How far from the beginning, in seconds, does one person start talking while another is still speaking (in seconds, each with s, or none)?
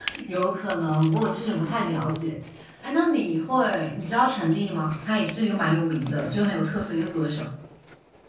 none